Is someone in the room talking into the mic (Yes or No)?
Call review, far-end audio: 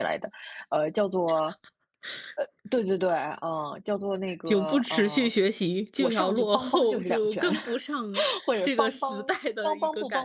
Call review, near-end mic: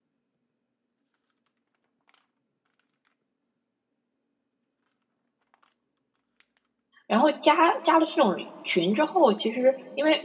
Yes